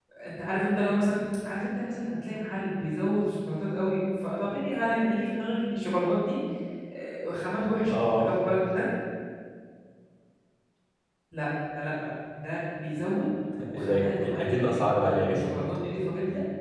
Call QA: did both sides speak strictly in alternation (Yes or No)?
No